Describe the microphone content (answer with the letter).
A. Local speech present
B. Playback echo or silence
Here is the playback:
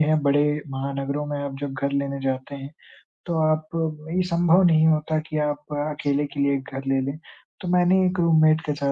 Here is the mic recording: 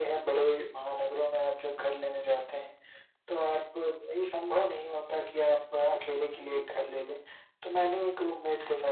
B